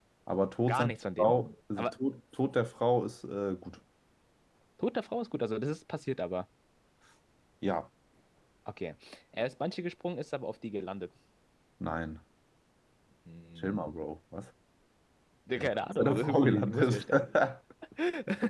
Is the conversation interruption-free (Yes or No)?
No